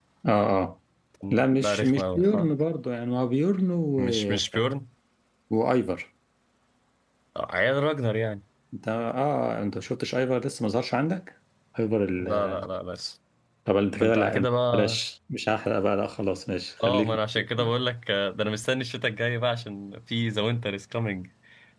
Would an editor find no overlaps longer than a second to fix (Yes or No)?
No